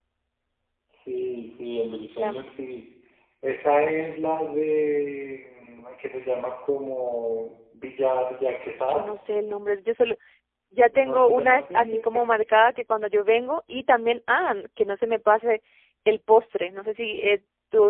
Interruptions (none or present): present